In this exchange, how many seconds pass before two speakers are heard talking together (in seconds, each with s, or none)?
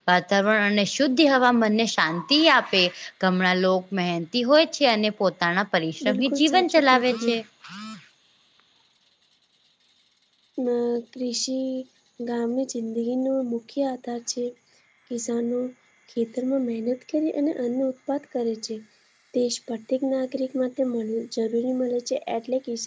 6.0 s